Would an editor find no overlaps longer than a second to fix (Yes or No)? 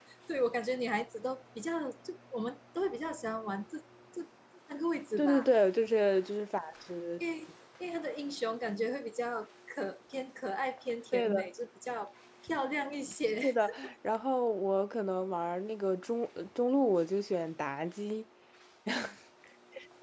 Yes